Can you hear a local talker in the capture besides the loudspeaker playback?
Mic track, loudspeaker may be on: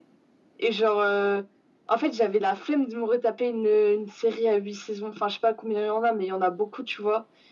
No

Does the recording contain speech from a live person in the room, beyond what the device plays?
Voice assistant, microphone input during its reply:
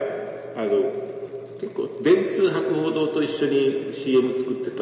No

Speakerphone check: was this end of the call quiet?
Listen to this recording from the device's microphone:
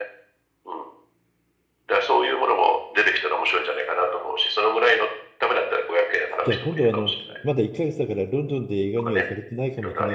No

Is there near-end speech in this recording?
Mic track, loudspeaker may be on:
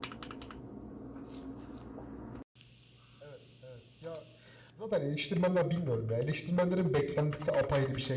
Yes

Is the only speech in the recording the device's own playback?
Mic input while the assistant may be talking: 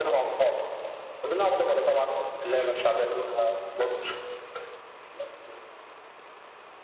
Yes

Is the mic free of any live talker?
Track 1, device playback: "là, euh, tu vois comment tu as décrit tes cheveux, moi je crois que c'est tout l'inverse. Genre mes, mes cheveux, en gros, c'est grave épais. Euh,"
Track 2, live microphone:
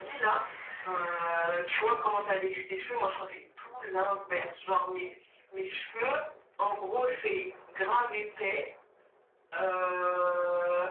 Yes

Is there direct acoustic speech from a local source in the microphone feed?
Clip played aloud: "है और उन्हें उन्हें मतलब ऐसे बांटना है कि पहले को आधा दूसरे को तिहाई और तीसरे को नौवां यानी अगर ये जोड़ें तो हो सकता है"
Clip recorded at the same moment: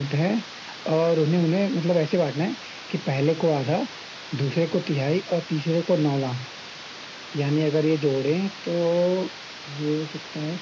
No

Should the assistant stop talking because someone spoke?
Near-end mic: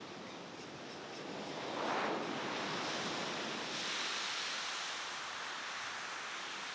No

